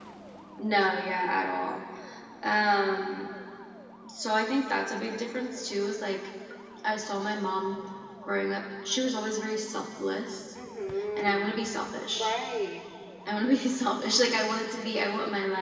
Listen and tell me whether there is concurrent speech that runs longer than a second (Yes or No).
No